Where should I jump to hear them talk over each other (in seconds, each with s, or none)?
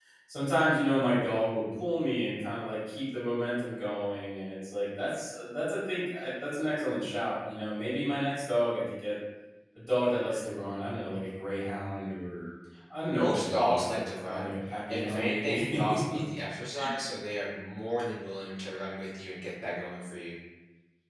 13.1 s